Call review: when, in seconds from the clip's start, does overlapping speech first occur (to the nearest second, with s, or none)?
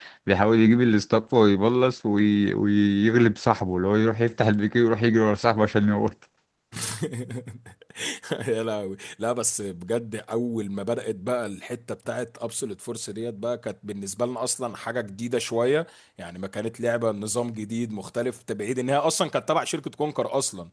none